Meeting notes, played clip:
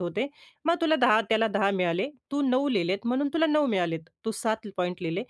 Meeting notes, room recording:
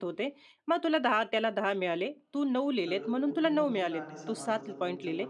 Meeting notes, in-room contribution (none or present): present